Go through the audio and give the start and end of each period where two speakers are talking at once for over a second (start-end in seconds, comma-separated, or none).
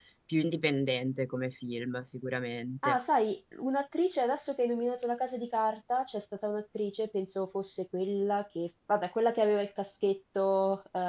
none